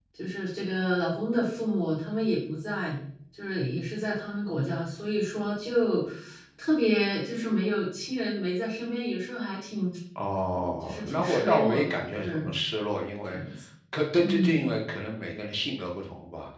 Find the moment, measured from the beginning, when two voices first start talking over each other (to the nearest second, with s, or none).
11 s